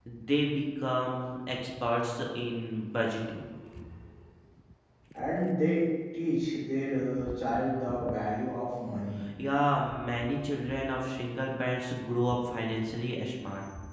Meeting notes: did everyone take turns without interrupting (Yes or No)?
Yes